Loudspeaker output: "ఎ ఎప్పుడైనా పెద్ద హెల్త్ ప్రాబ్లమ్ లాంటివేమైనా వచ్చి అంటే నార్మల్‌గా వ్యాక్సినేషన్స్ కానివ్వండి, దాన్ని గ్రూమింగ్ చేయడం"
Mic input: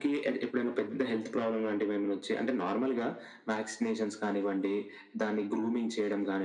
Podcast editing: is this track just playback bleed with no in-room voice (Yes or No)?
Yes